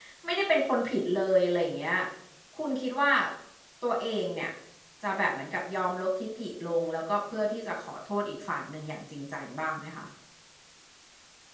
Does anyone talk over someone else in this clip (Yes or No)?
No